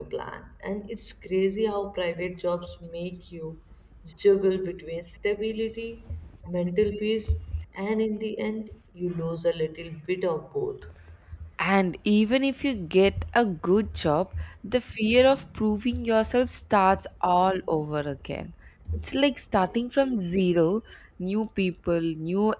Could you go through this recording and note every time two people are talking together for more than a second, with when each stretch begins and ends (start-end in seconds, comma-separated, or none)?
none